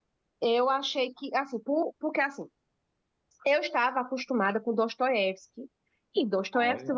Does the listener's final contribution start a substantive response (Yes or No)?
No